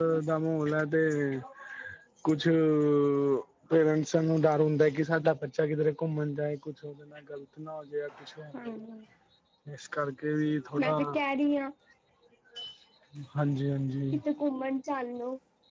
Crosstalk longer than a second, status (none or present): none